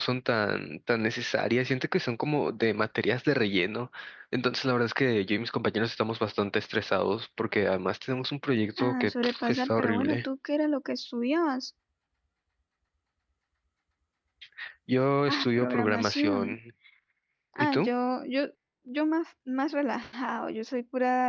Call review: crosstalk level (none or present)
present